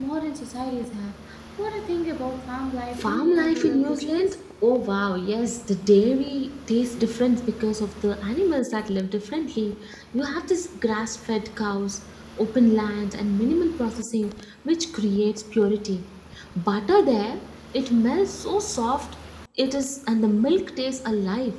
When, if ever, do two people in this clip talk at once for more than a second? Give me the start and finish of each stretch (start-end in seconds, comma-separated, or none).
3.0-4.4